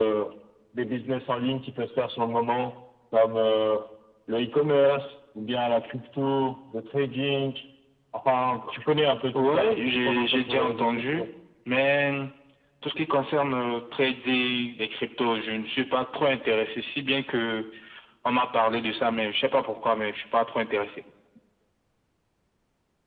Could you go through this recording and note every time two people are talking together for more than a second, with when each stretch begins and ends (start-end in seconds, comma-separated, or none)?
9.3-11.2